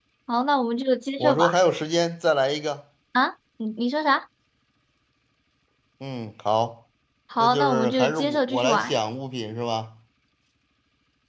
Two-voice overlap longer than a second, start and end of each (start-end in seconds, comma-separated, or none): 7.4-8.9